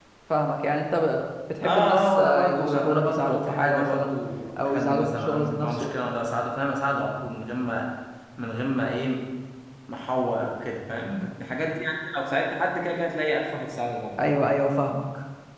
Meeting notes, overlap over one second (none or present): present